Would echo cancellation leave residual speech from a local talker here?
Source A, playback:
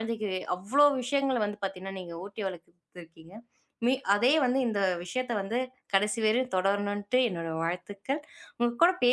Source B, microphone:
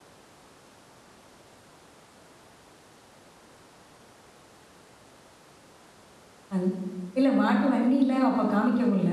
Yes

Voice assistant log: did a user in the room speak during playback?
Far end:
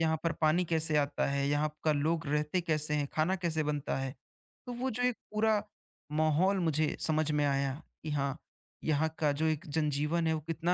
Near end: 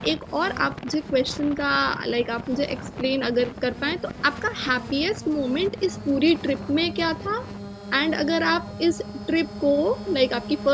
Yes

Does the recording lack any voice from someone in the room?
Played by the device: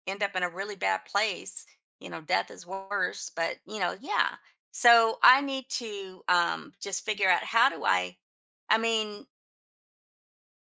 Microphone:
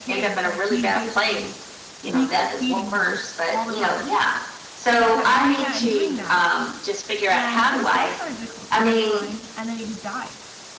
No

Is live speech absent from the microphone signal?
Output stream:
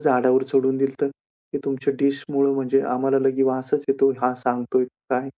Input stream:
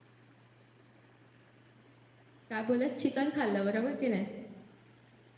No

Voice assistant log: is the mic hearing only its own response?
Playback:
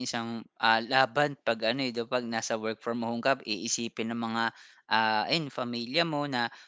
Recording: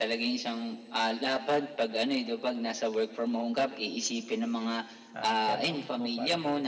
No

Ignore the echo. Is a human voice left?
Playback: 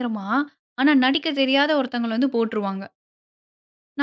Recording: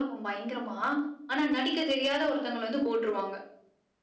No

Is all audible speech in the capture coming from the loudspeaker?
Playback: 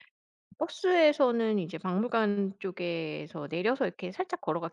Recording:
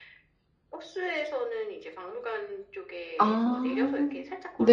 No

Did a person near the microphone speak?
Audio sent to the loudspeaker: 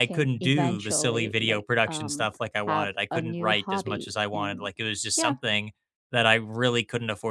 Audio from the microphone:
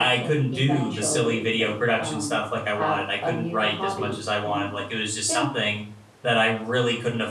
No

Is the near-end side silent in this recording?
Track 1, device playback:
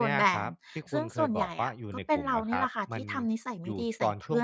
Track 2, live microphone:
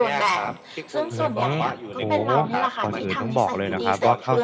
No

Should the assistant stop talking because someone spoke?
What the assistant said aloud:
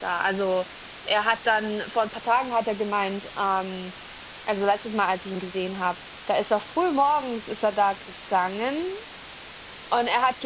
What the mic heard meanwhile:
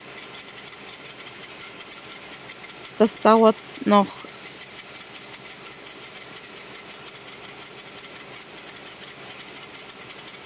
Yes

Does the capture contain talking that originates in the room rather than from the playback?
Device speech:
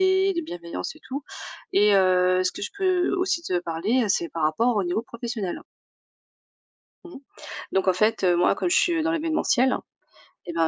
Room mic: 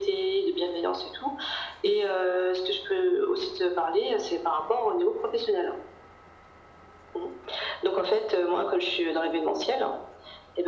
No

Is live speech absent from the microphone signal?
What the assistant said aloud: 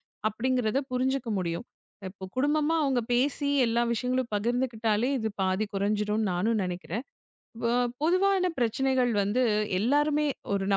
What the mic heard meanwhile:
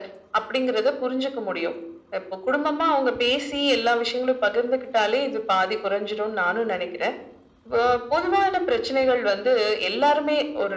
Yes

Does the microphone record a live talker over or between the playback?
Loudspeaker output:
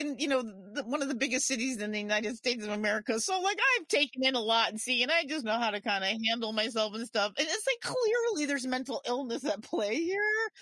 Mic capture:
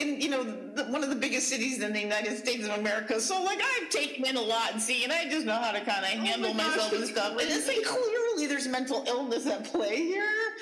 Yes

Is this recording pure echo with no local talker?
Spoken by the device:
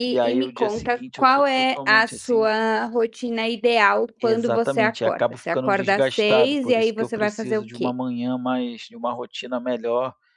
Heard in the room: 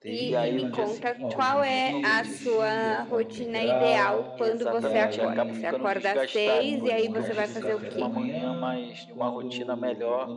No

